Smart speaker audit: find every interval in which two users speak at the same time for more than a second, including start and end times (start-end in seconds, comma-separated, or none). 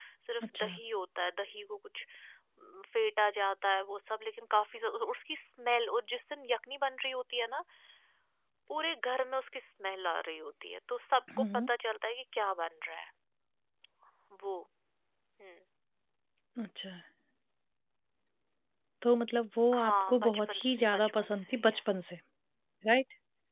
19.7-22.1